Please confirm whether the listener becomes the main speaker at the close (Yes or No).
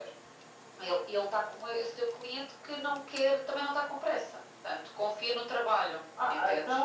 Yes